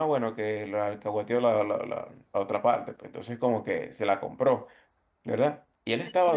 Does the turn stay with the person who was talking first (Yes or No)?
No